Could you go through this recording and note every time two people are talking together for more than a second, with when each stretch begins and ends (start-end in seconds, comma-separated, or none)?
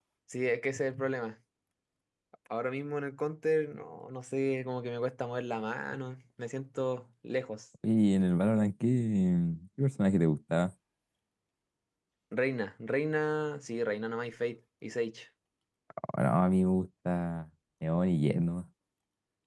none